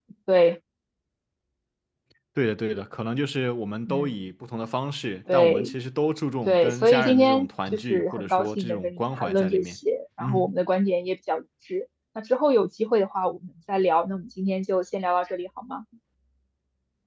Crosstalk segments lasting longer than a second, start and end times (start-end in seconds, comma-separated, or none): 6.5-9.8